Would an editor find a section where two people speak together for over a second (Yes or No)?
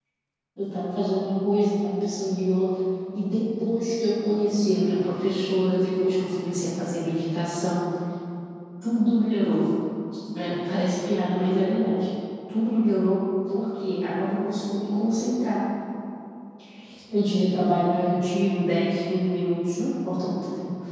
No